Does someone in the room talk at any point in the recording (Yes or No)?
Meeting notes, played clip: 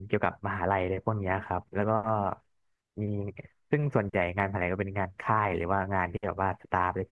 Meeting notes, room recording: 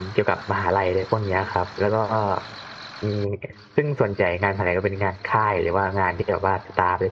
No